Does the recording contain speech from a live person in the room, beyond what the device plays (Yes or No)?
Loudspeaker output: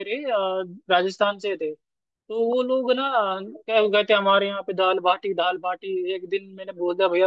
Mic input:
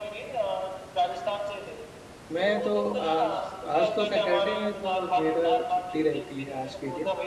Yes